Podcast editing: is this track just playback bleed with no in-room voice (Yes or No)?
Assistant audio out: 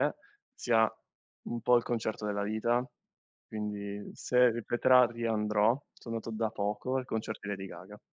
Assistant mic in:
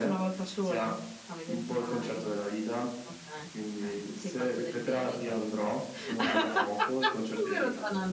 No